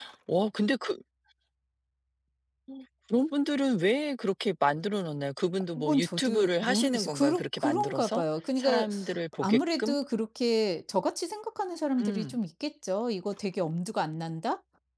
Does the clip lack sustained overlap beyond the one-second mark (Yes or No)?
No